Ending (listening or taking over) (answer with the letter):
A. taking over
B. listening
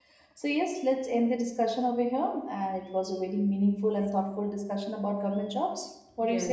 A